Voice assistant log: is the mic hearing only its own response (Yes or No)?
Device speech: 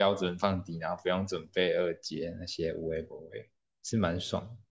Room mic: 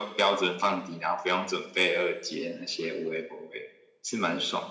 Yes